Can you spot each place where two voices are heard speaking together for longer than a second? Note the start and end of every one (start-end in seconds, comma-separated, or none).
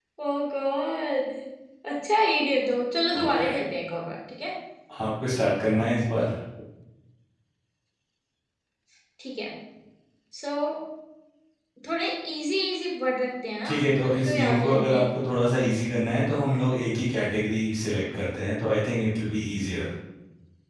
13.7-15.0